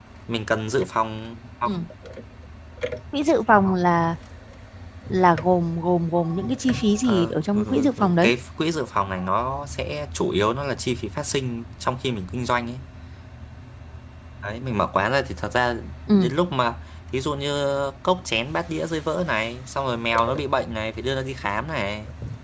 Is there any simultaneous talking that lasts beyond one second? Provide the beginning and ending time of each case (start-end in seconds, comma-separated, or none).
7.0-8.3